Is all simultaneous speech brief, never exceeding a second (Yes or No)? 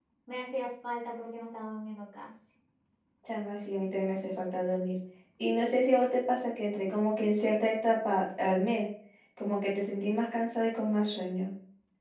Yes